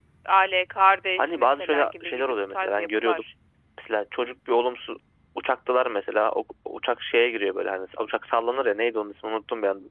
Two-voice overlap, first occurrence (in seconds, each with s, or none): 1.2 s